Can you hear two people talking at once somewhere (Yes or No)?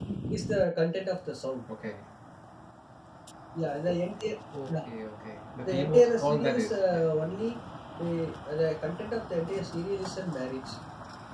Yes